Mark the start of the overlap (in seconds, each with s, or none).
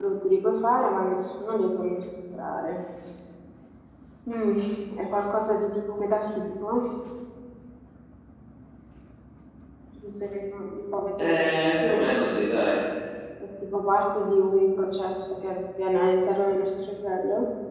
11.2 s